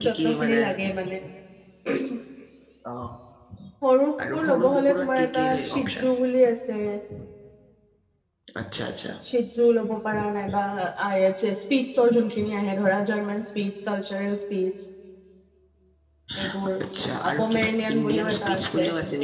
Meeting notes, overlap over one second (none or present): present